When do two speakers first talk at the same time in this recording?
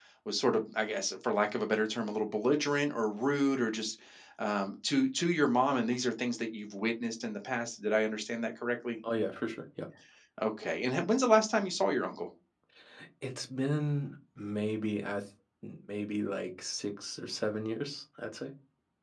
none

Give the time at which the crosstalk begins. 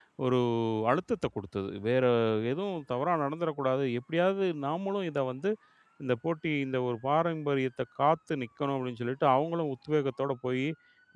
none

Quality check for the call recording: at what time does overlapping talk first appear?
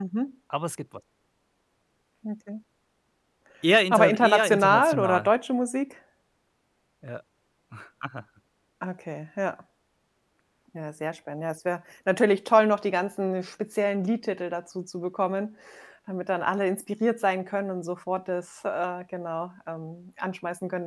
3.9 s

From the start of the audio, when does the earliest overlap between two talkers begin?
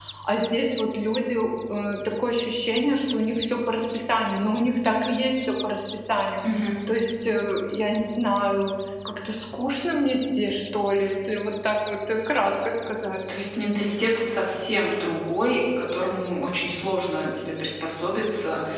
none

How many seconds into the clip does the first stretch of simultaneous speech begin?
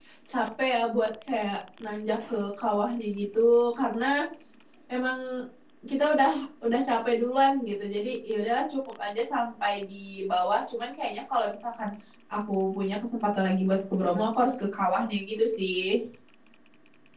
none

